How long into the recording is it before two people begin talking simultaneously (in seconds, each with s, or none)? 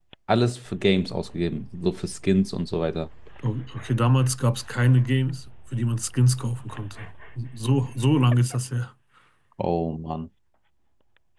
none